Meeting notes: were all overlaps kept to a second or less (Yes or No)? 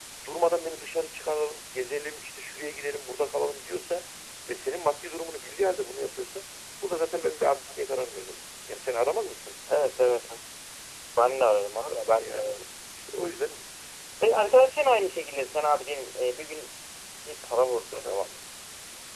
Yes